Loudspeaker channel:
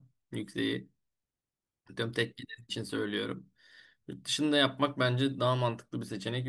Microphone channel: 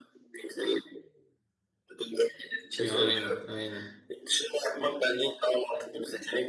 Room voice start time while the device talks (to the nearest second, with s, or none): 3 s